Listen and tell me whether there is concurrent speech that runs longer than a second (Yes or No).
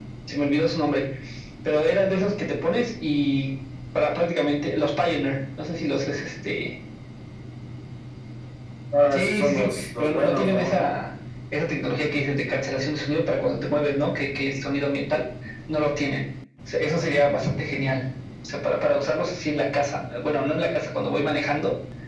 Yes